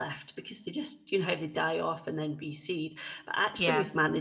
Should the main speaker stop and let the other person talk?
No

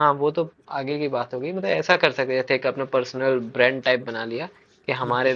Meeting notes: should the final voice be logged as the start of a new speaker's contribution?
No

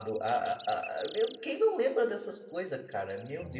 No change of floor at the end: Yes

